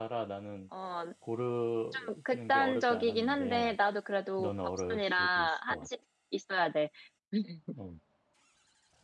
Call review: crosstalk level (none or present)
present